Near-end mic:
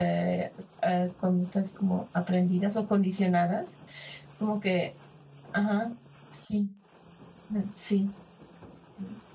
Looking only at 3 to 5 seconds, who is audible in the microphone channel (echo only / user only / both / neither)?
user only